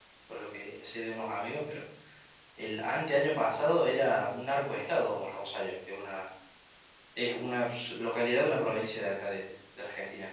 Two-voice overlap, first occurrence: none

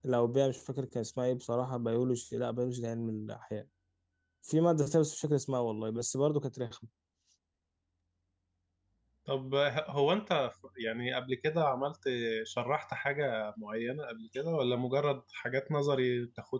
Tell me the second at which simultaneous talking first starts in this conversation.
none

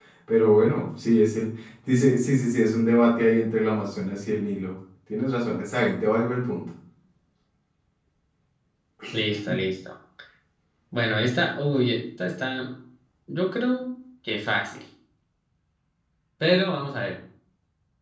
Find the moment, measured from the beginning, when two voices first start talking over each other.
none

